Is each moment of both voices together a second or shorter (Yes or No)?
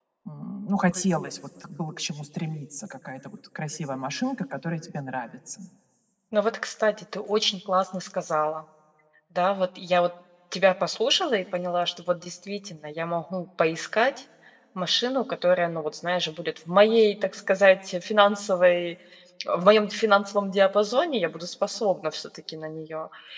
Yes